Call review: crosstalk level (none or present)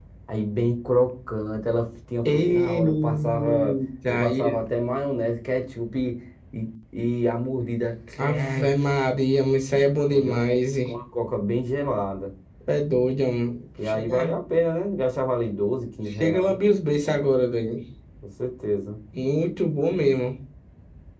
present